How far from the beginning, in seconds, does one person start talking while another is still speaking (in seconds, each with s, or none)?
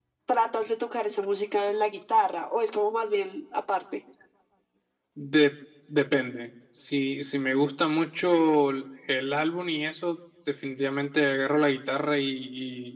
none